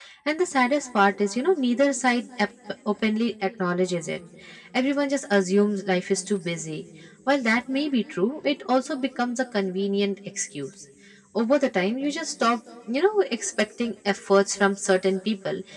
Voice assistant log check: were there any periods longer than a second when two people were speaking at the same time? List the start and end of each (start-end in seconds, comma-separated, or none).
none